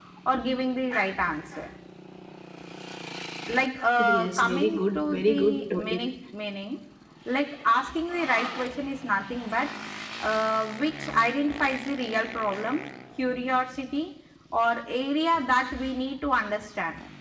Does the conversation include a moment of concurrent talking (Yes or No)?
Yes